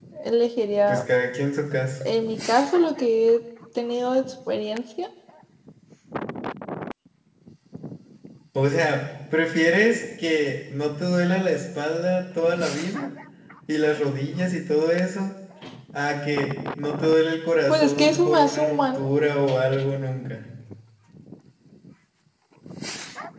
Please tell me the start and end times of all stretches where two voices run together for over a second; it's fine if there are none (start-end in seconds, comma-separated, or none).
17.7-19.1